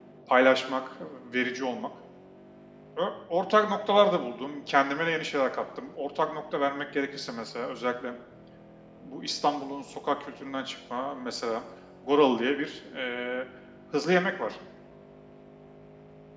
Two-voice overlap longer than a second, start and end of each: none

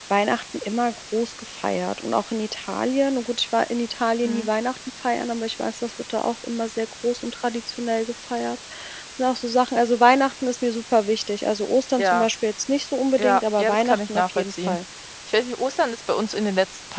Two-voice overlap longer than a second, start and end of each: 13.2-14.8

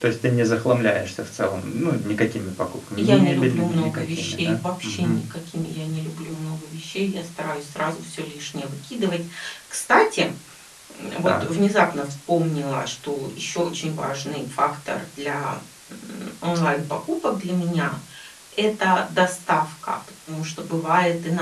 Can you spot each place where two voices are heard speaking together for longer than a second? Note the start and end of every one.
3.0-5.2

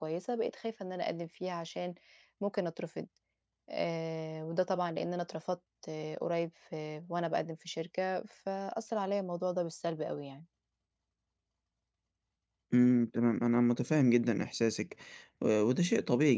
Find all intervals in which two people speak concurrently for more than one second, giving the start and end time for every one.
none

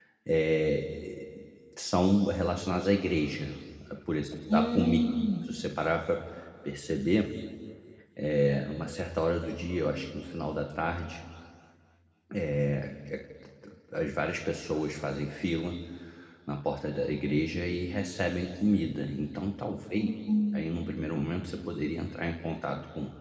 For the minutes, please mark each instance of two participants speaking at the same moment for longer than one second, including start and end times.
none

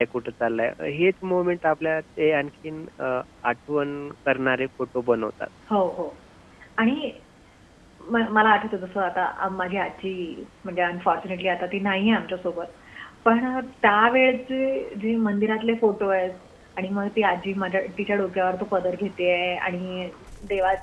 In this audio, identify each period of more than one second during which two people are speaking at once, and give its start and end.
none

